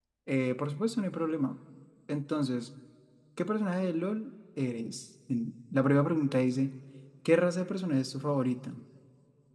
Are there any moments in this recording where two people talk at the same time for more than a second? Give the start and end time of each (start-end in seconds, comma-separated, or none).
none